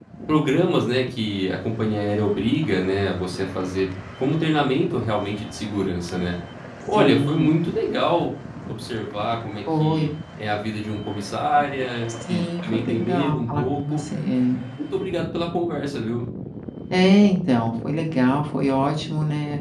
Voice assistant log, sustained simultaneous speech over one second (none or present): present